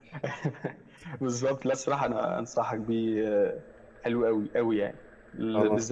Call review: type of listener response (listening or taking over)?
listening